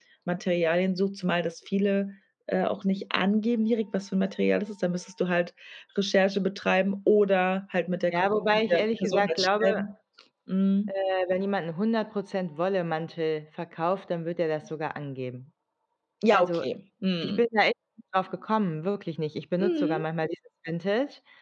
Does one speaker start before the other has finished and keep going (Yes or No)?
Yes